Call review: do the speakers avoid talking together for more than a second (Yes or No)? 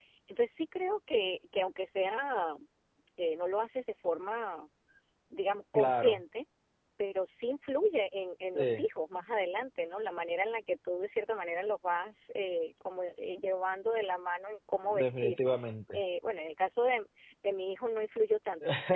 Yes